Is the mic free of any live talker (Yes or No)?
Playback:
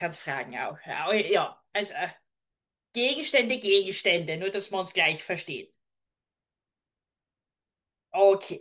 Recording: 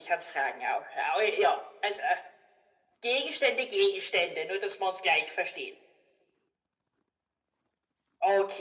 Yes